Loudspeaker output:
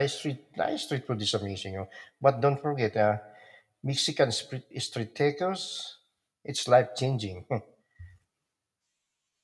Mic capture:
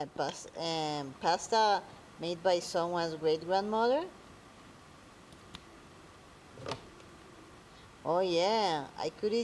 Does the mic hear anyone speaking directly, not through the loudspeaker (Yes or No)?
Yes